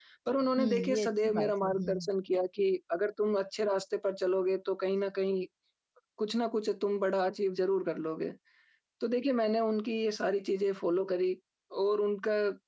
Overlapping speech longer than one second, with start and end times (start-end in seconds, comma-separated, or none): 0.6-2.1